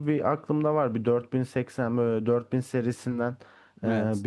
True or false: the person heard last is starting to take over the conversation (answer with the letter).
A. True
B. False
B